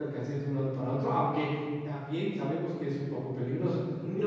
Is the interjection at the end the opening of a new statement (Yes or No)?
No